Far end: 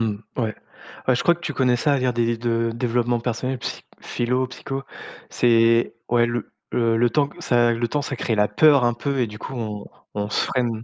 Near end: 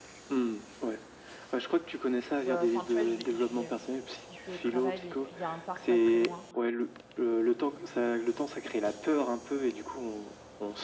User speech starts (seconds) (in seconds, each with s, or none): 2.4 s